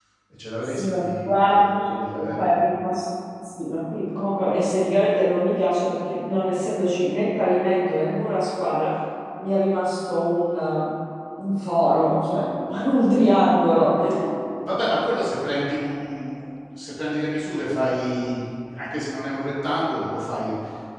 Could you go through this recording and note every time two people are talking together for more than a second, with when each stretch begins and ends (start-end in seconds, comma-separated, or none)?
0.6-2.6